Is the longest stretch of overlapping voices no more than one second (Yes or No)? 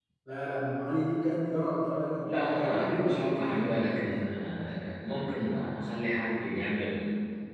No